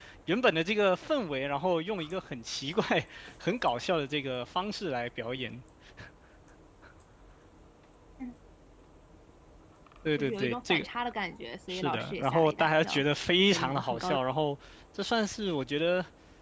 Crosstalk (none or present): present